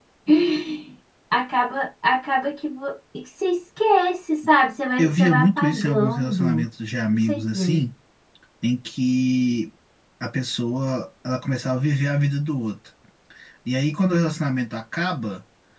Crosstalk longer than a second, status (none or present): present